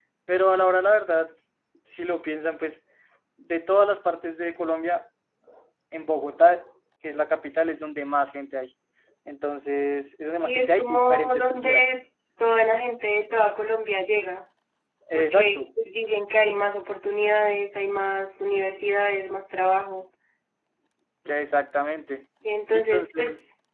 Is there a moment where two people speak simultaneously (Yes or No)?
Yes